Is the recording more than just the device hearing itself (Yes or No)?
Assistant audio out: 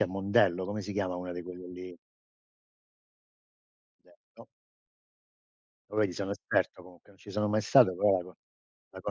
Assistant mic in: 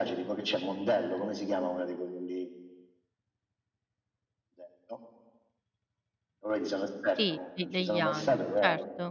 Yes